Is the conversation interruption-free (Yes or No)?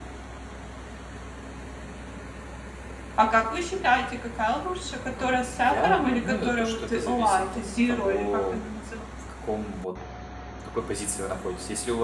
No